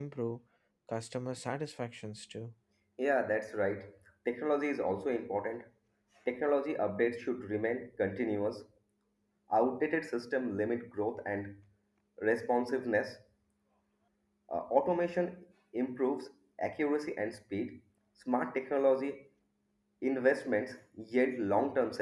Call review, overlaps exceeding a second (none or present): none